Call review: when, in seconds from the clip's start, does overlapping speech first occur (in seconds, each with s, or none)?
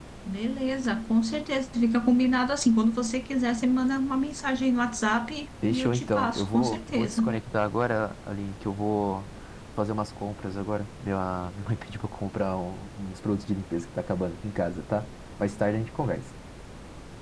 5.6 s